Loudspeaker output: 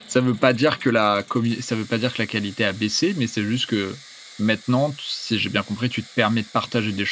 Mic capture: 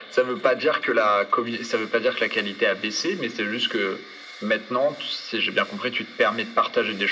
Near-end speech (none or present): none